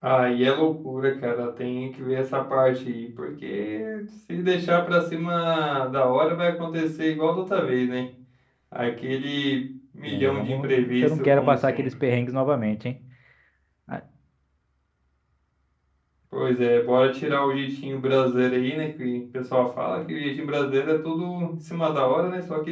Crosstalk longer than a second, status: present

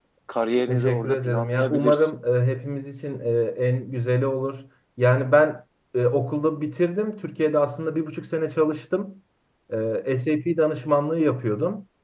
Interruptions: present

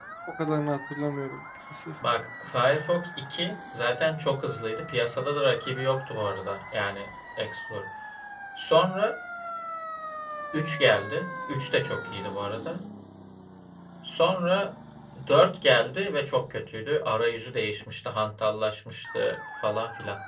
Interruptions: none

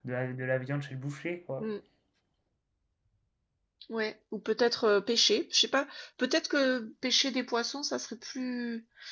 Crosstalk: none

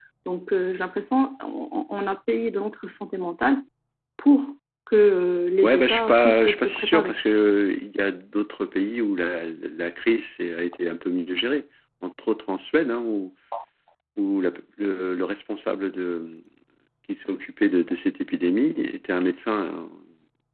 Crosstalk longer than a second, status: present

